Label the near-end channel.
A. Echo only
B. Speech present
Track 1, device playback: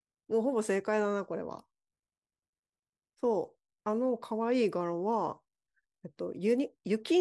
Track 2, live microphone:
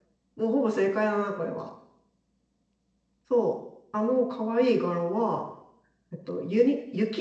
A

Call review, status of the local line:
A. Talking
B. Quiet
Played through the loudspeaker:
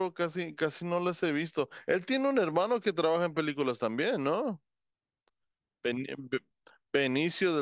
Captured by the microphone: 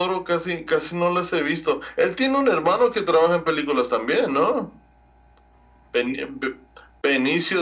B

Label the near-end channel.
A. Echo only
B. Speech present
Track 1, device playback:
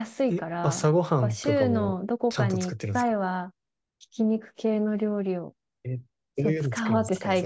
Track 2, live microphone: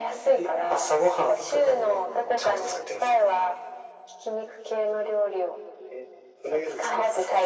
A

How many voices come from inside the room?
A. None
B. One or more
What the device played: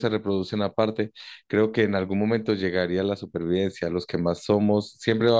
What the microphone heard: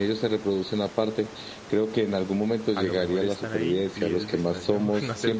B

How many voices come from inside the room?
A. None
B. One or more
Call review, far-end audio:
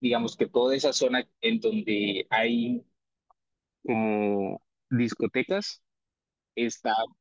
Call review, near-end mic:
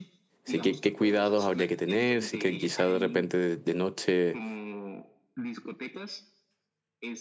B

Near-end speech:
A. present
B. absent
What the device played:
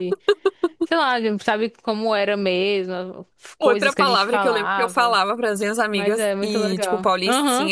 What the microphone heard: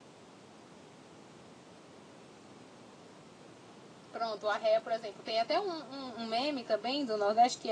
A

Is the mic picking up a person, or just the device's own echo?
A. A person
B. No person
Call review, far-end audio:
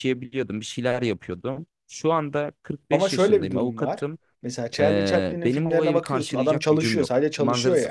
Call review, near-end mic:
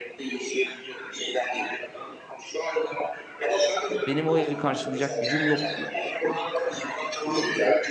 A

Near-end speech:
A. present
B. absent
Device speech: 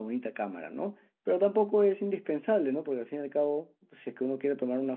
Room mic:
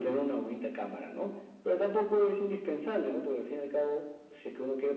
B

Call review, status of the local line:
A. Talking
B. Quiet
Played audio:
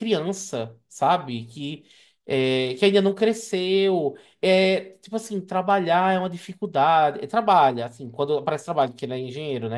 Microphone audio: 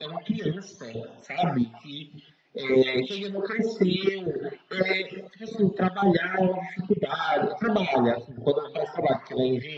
B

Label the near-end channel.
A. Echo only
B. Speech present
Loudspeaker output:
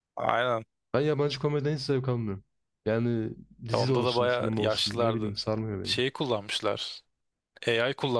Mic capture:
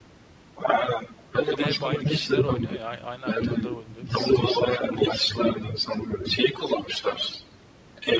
B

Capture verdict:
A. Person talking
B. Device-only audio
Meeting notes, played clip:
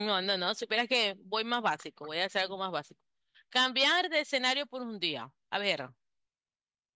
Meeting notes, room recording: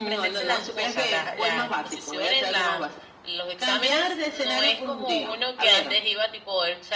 A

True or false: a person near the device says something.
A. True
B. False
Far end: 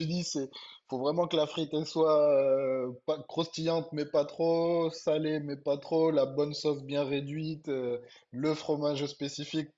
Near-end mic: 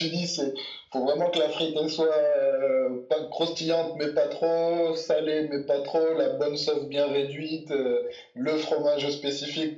B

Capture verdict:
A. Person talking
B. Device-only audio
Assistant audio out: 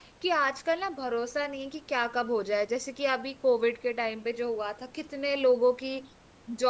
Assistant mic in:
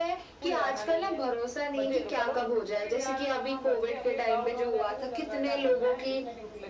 A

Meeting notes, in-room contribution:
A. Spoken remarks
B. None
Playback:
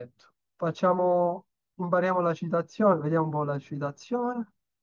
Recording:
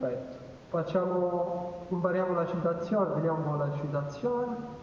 B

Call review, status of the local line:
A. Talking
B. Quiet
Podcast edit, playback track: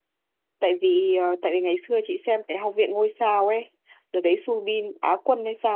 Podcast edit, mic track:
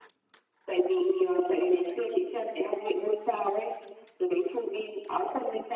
B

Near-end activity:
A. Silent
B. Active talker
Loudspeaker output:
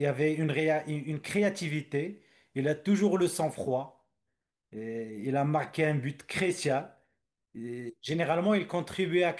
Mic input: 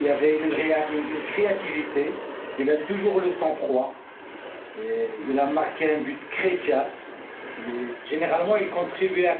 A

